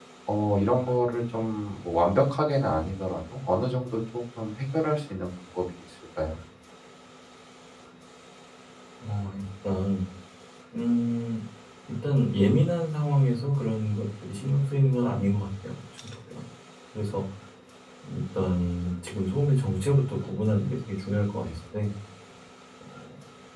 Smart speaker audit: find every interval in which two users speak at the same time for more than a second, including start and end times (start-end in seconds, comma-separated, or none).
none